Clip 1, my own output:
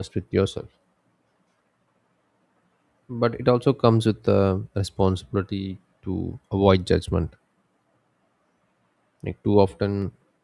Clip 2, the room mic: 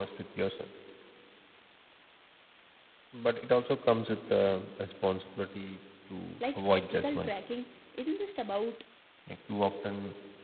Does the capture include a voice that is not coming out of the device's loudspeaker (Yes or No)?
Yes